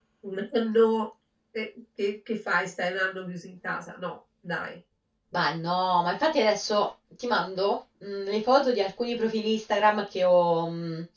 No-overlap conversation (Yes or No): Yes